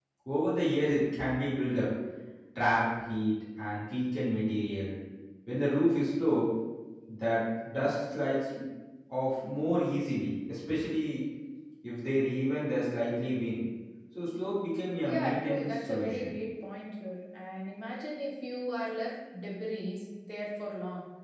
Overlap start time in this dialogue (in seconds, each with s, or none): 15.0 s